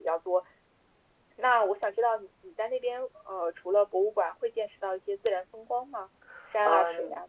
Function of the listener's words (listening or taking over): taking over